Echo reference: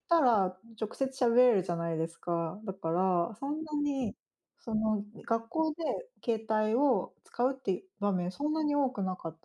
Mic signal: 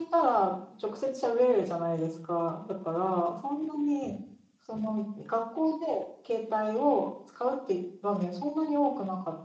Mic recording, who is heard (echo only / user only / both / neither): echo only